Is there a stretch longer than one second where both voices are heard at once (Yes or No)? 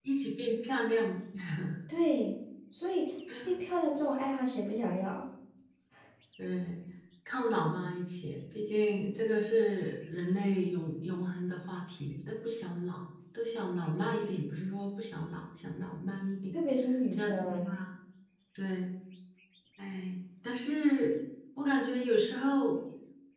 No